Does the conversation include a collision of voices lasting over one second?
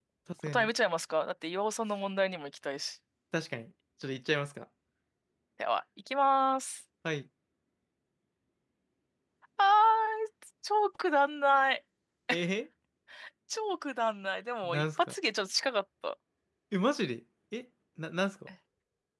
No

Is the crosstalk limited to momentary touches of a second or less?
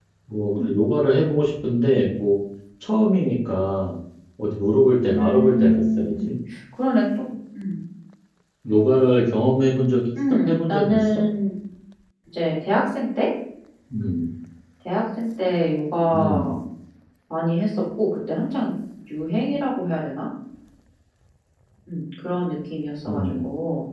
No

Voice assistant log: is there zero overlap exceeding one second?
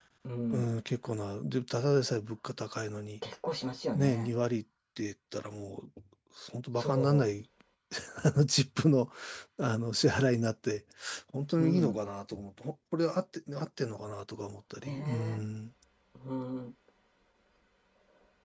Yes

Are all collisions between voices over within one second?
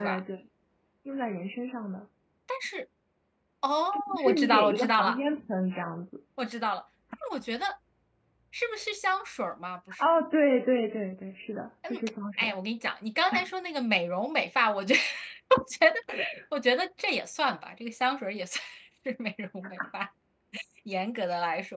No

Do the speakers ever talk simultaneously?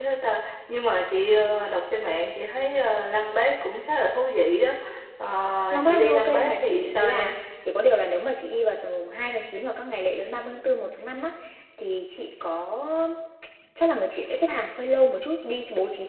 Yes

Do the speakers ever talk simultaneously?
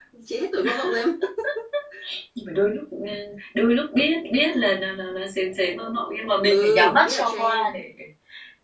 Yes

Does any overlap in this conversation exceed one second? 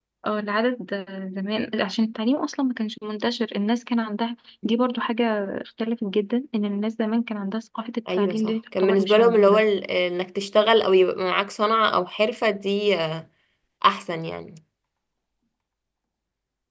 Yes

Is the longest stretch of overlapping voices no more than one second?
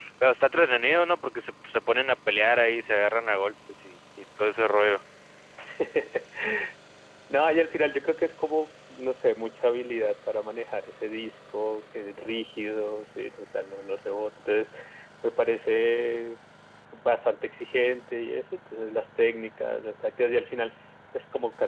Yes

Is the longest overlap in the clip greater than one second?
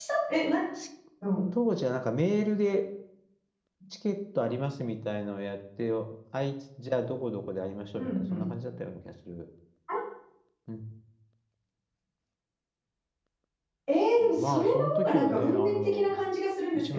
Yes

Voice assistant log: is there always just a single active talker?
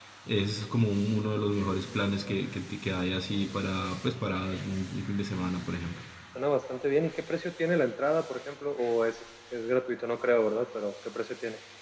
Yes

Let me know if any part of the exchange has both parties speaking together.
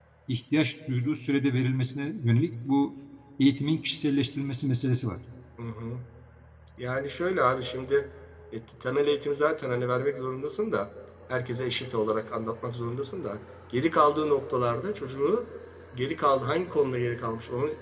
No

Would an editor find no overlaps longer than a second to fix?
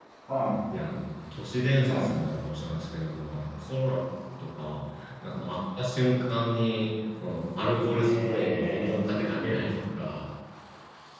No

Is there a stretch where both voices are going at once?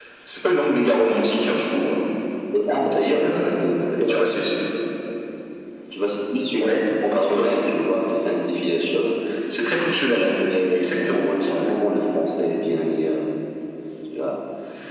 Yes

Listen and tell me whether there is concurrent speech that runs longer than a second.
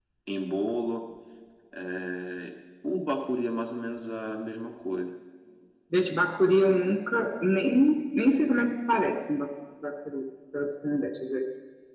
No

